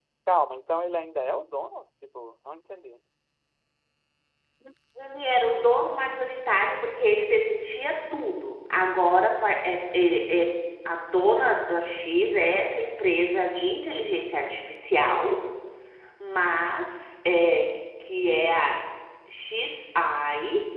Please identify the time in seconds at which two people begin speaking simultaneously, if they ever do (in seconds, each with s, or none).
none